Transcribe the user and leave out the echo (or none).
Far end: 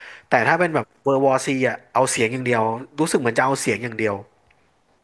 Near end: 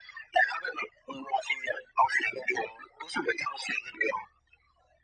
none